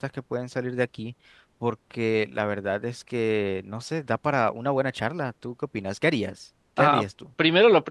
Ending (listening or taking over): taking over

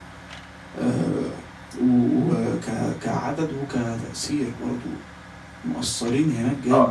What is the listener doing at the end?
taking over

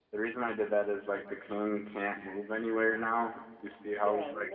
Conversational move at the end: taking over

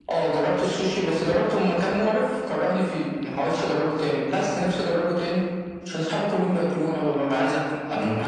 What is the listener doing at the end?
taking over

